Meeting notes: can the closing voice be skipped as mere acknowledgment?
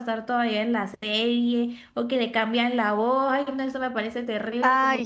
No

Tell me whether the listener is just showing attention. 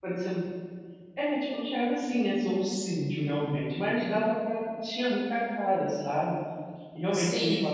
Yes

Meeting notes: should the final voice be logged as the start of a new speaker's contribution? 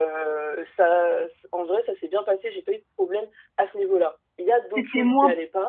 Yes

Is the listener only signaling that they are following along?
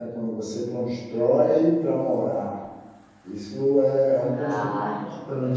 Yes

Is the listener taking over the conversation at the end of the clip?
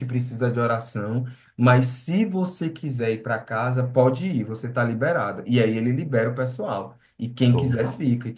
No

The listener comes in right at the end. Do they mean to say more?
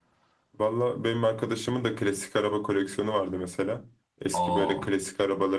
No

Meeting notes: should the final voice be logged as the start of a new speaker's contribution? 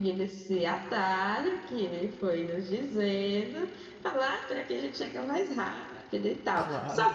Yes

